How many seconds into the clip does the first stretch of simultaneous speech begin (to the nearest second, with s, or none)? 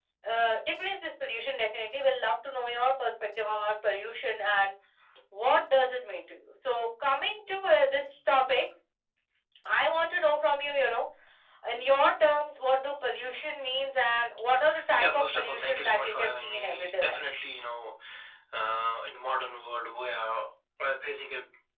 15 s